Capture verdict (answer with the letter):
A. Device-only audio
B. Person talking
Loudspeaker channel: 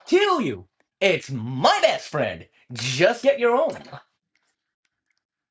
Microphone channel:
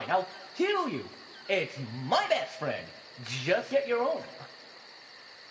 A